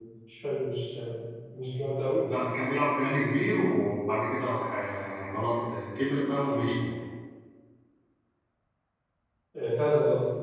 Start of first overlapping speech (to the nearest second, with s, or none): none